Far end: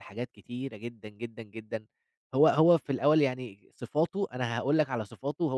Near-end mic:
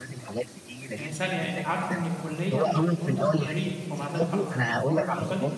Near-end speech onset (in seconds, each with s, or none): 0.9 s